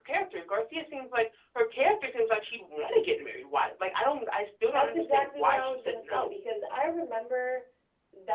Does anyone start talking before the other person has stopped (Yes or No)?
Yes